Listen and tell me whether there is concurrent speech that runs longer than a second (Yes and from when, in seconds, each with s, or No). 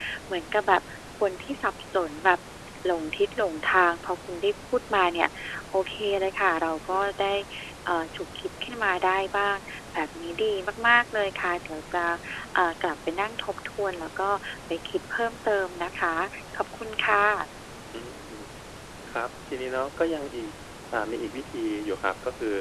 No